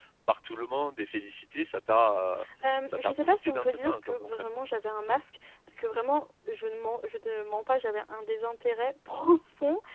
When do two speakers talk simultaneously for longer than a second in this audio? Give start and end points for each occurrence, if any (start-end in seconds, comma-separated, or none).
2.9-4.6